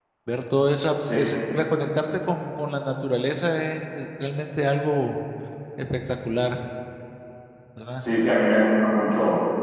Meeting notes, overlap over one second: none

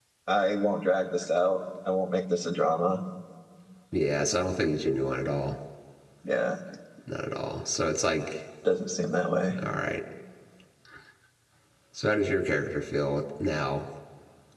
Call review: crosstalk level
none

